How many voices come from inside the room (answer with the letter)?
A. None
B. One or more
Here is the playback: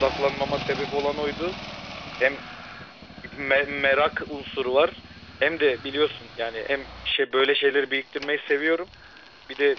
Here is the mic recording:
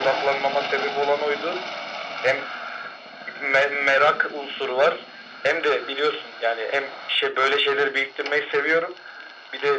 A